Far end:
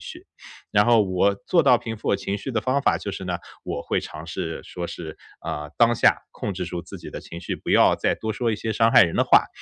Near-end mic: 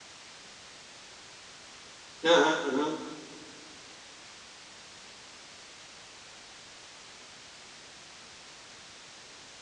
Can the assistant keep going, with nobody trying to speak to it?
No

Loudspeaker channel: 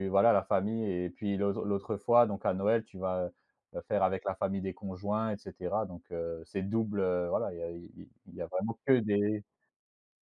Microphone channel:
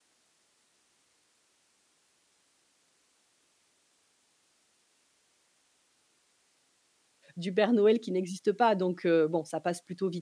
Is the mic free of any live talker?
No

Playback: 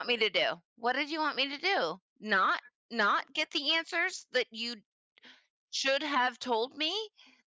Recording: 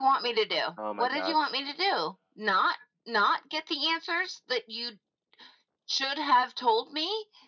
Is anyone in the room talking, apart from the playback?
Yes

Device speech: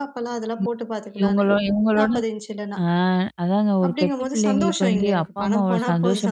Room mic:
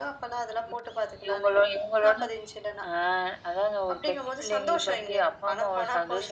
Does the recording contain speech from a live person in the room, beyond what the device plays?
No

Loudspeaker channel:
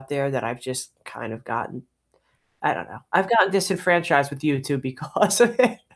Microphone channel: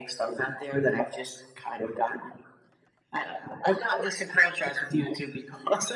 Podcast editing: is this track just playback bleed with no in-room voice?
Yes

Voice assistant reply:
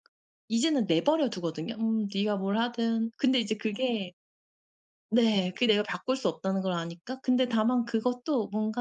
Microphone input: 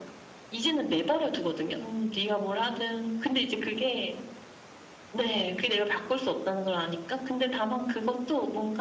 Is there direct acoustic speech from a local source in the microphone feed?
No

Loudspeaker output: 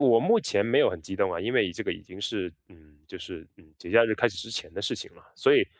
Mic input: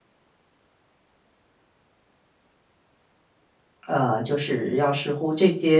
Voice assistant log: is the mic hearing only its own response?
No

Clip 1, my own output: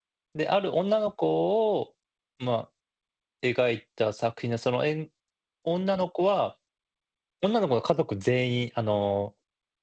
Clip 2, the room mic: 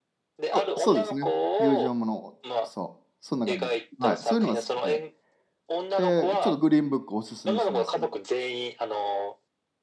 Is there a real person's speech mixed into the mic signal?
Yes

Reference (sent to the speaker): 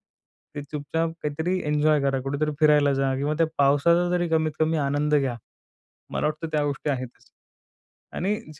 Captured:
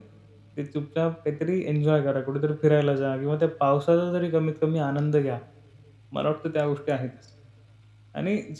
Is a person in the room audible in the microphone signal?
No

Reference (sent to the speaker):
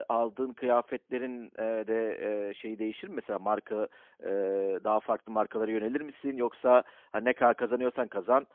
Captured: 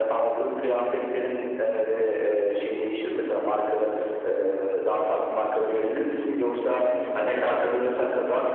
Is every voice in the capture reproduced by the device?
Yes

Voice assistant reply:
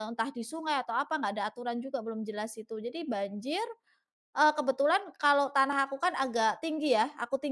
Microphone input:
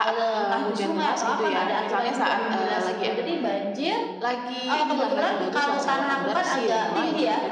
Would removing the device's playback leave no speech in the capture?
No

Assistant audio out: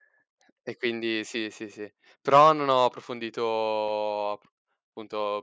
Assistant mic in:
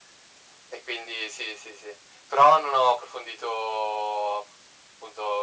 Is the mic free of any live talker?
Yes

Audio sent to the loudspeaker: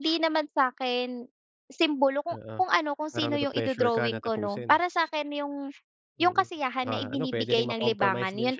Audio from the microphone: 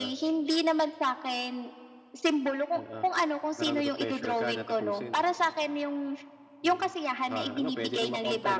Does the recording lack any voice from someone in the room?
Yes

